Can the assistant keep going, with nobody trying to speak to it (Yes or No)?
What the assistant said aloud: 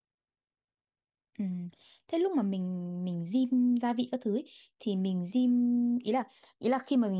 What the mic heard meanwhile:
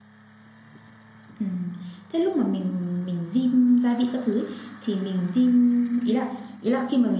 Yes